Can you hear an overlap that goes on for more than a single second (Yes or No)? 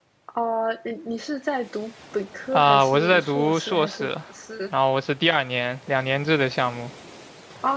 Yes